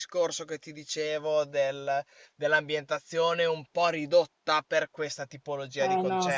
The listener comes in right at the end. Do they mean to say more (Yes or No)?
Yes